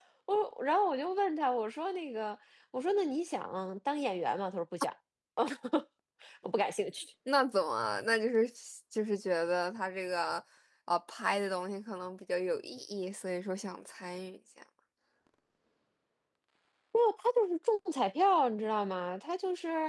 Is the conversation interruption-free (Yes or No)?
Yes